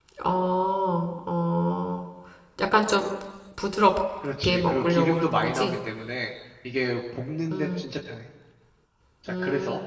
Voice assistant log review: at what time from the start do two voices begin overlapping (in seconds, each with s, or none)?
4.4 s